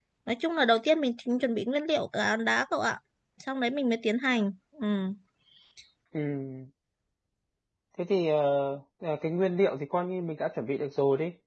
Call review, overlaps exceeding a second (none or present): none